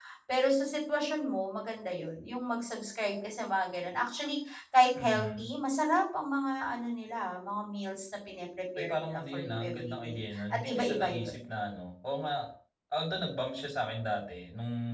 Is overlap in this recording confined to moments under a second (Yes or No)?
No